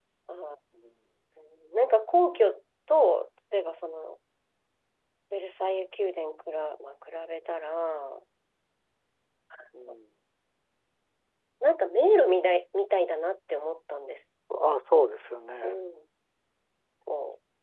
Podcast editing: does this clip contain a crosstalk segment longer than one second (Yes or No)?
No